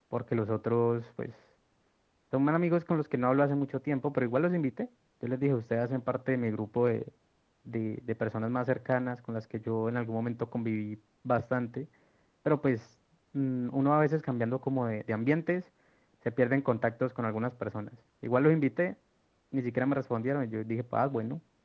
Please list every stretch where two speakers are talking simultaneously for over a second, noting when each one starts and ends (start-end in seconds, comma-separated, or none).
none